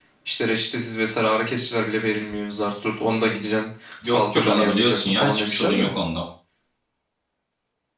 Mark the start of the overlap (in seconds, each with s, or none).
4.0 s